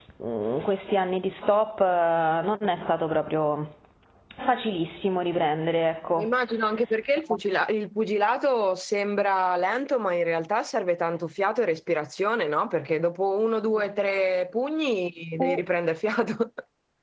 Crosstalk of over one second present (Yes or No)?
No